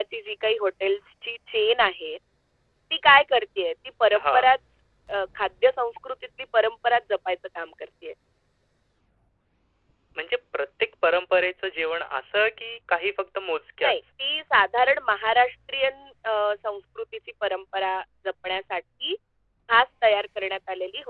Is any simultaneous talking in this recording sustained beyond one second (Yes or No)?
No